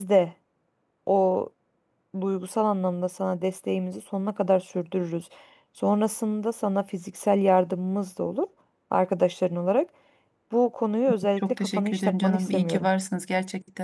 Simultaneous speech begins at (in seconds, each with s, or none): 11.4 s